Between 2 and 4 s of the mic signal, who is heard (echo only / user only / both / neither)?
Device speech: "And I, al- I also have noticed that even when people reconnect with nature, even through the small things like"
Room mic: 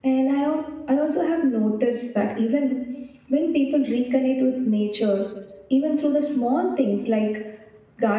echo only